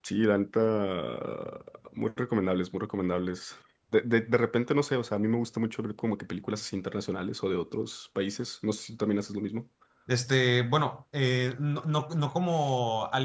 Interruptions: none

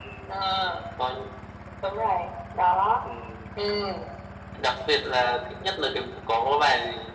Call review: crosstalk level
none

